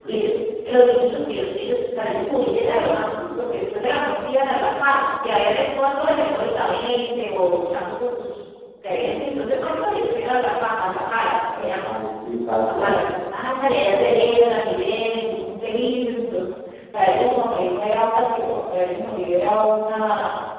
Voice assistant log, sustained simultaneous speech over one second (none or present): none